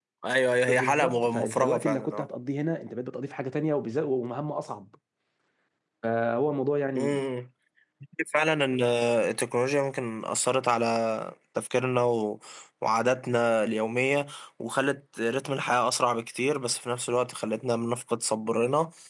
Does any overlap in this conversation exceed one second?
Yes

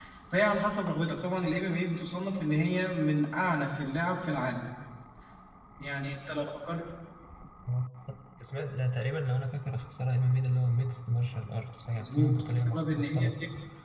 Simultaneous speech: Yes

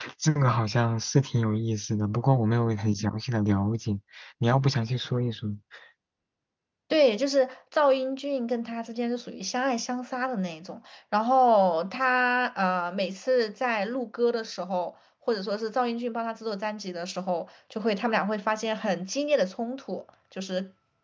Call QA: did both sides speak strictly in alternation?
Yes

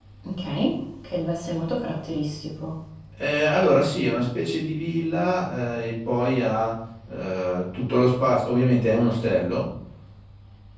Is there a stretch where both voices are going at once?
No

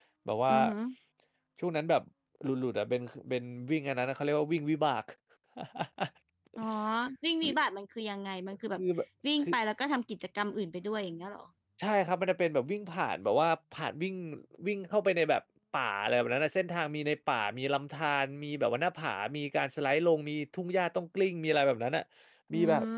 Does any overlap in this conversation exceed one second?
No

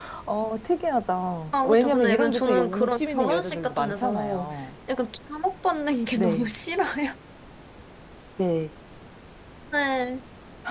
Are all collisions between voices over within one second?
No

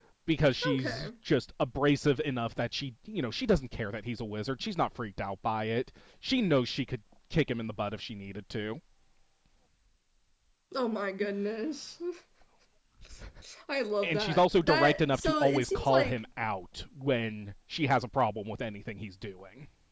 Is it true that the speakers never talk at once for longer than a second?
No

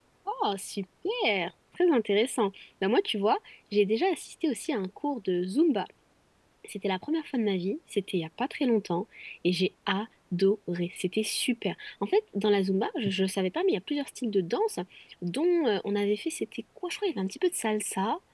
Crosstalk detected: No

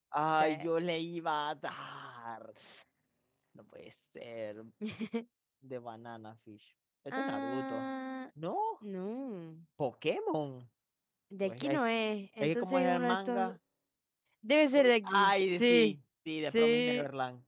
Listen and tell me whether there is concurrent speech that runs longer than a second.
Yes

